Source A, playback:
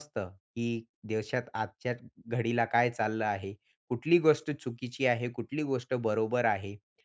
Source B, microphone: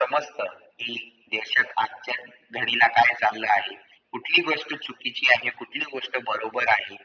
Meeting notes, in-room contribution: none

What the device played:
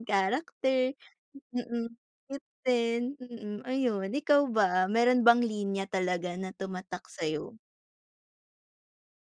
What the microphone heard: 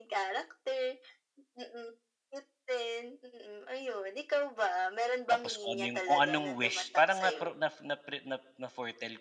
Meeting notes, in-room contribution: present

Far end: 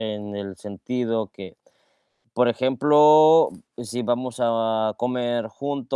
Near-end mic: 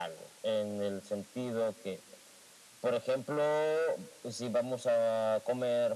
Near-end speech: none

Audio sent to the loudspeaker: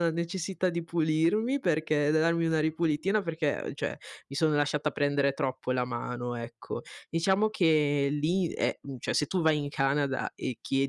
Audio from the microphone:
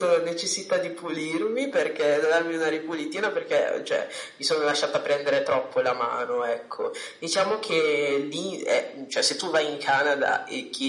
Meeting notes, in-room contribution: none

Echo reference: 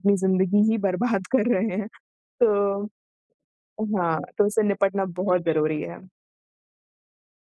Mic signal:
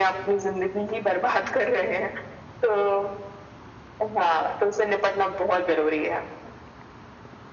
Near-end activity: none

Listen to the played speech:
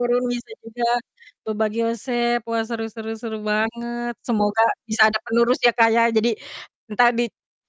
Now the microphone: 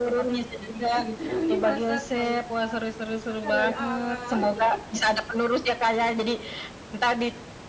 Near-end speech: present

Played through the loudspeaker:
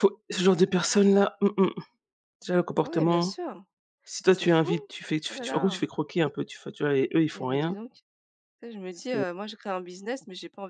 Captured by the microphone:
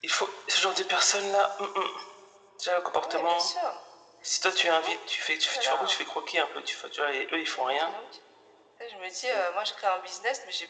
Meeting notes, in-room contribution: none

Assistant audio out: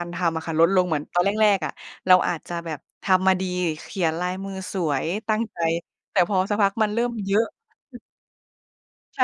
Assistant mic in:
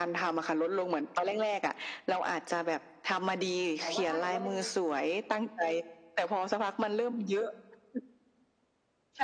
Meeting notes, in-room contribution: present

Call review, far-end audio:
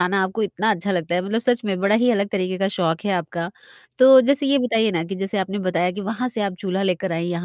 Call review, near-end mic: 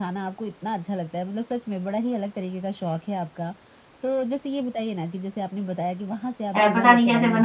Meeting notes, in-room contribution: present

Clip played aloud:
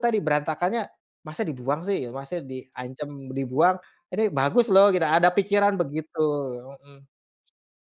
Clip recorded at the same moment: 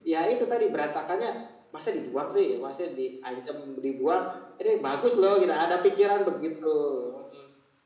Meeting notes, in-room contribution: none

